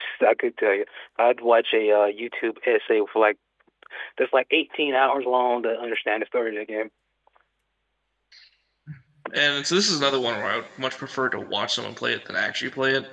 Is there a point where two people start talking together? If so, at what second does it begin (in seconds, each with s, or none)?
none